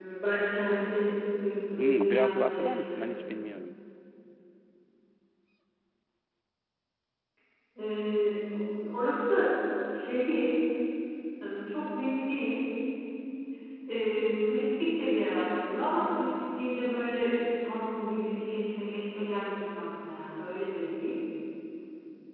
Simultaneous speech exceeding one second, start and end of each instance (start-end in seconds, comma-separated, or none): 1.8-3.1